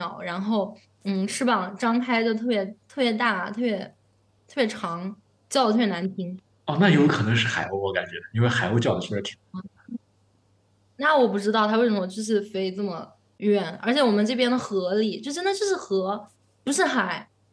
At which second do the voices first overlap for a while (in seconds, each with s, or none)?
none